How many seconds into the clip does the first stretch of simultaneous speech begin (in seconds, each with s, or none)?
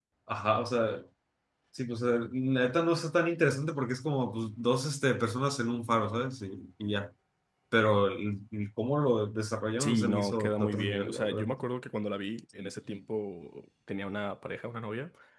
9.8 s